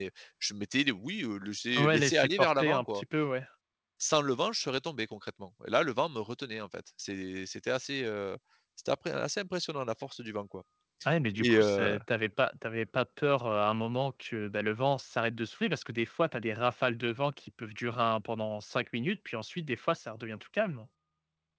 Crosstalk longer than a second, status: present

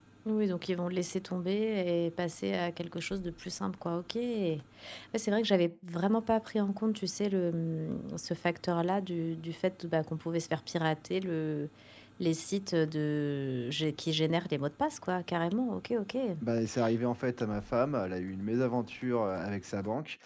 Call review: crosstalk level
none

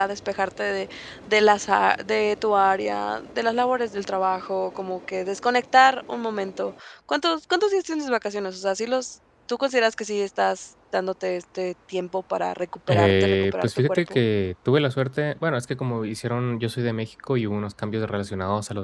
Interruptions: present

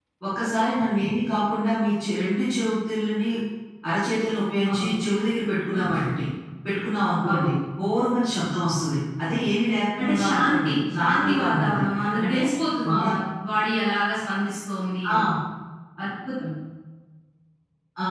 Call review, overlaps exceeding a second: present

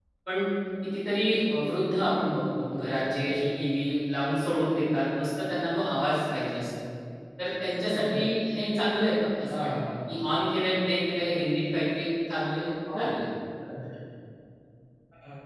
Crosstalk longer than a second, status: none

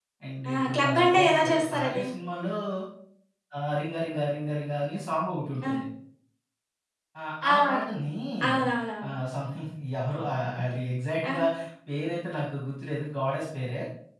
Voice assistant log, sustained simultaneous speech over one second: present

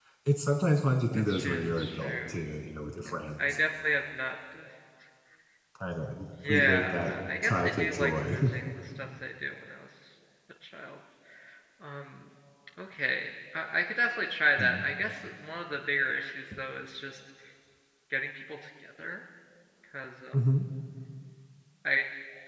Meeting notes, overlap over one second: present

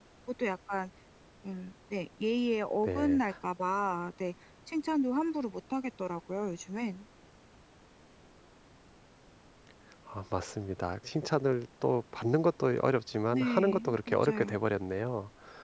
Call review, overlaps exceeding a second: present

